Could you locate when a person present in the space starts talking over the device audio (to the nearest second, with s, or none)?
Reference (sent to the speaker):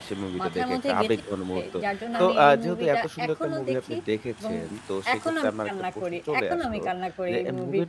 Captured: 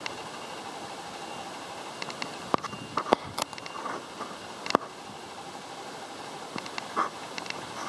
none